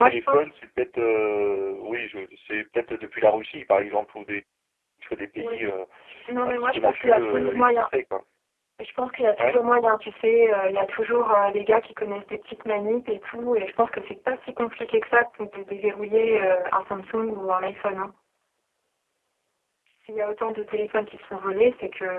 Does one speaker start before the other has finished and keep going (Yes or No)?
Yes